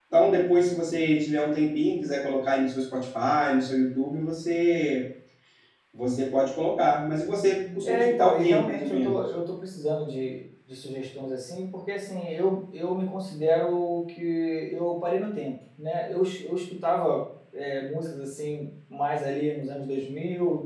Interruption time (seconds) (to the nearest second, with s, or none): 8 s